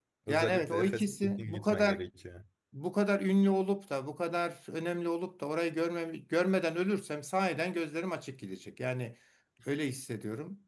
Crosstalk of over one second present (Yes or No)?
Yes